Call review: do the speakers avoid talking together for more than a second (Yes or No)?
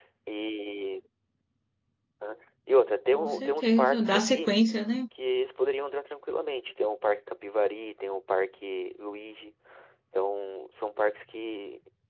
No